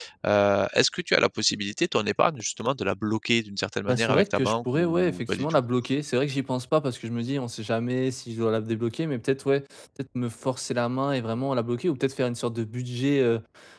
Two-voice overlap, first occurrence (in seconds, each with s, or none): 3.9 s